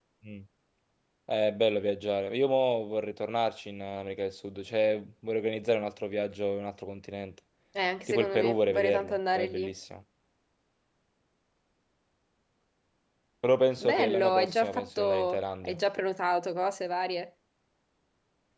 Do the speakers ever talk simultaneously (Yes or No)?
Yes